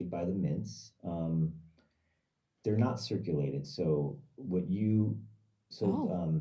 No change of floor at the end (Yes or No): Yes